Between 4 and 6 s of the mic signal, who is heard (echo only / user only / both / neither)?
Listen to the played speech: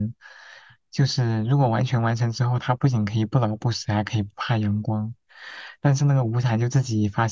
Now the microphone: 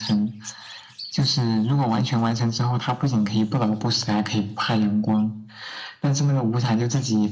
echo only